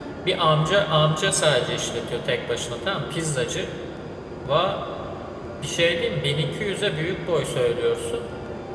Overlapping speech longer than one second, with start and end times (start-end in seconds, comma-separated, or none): none